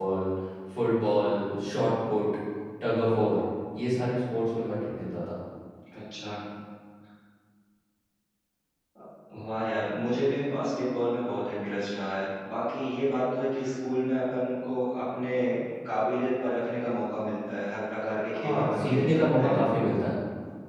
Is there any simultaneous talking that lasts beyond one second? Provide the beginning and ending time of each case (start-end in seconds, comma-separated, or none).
18.3-19.6